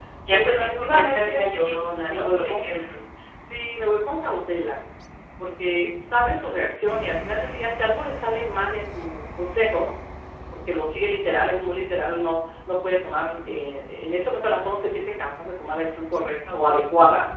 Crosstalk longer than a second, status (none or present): present